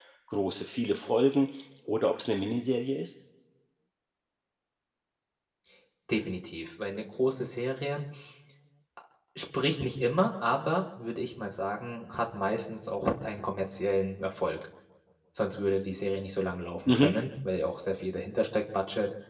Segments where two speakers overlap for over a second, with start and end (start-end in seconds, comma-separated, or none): none